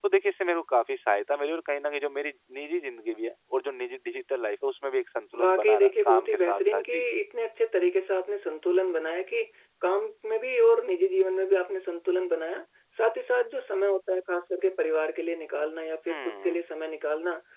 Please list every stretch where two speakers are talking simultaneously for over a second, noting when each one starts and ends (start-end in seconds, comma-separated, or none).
5.4-7.0